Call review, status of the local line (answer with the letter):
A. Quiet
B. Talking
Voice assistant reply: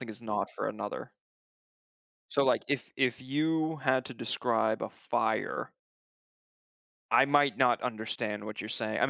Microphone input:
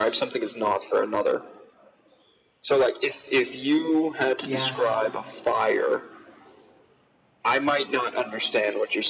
B